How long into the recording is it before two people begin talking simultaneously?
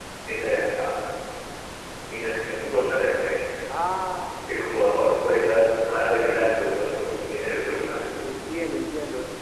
none

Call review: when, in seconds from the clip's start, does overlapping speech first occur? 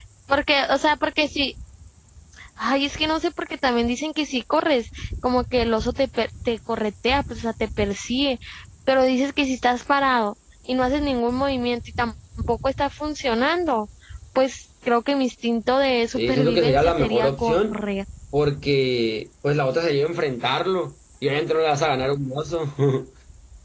16.2 s

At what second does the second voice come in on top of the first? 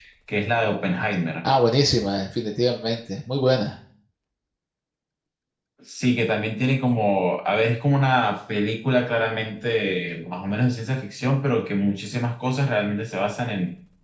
none

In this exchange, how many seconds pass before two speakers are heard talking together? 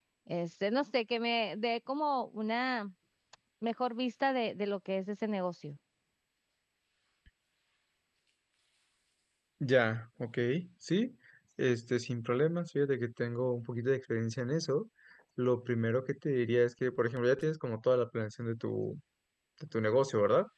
none

